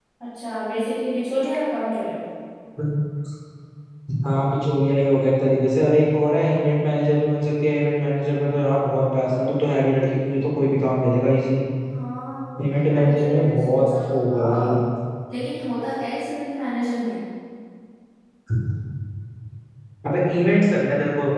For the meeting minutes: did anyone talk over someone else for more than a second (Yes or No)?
Yes